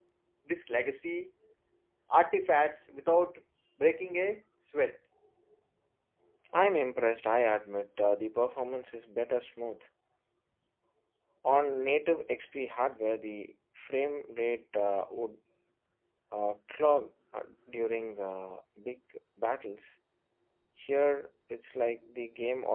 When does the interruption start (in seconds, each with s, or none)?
none